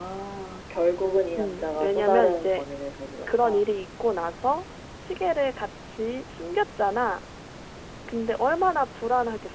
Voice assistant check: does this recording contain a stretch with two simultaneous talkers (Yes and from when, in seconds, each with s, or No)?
Yes, from 1.4 s